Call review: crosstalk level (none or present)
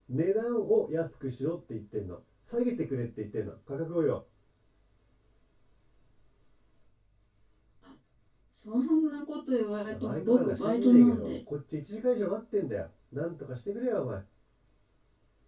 present